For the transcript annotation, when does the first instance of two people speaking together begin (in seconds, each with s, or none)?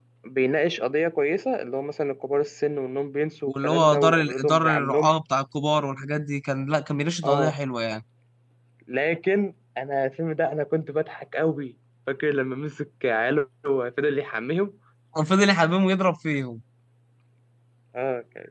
3.5 s